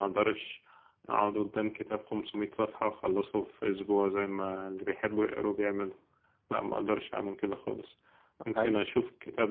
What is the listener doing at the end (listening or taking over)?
listening